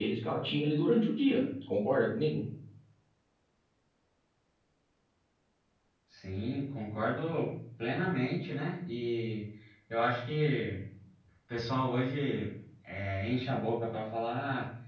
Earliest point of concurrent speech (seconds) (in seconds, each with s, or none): none